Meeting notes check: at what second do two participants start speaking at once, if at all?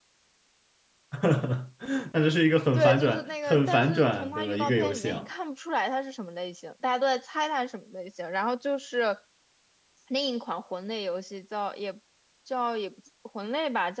2.7 s

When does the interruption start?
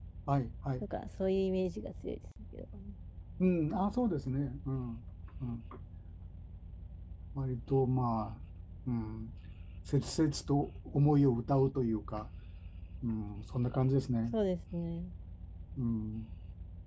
none

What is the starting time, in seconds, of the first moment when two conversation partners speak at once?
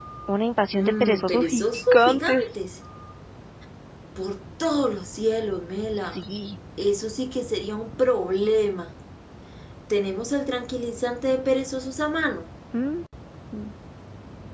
0.8 s

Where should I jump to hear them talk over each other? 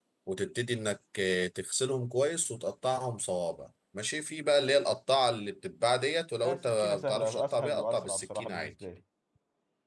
6.4 s

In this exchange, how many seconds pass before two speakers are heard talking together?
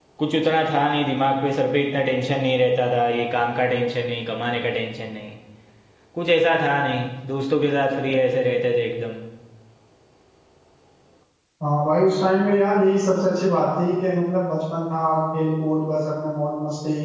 none

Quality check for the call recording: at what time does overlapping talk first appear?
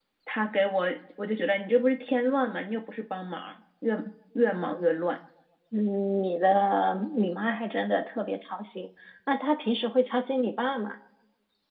none

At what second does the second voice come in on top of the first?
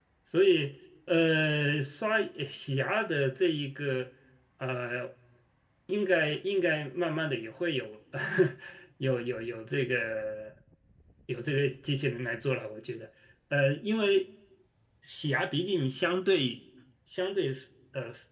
none

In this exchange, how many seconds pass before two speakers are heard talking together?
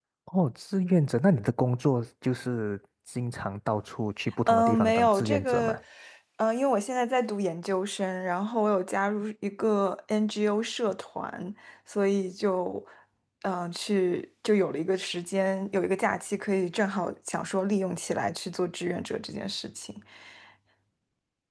4.5 s

